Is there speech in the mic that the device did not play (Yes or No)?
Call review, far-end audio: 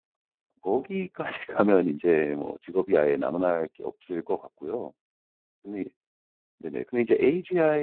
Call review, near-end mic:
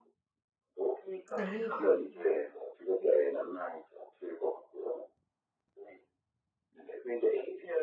Yes